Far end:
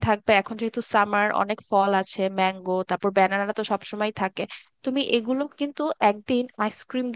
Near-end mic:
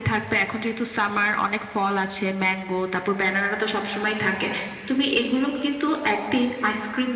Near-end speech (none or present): none